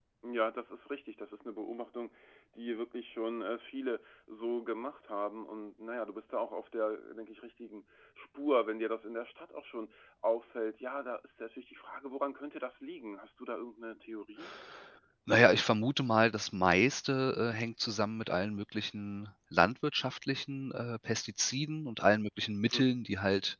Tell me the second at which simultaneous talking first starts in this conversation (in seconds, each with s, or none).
none